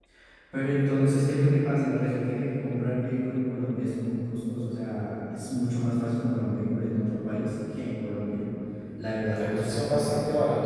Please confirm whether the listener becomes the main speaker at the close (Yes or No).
Yes